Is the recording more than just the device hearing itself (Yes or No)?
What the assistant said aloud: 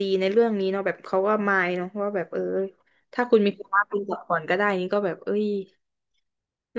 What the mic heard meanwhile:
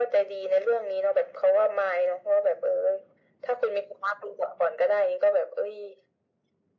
No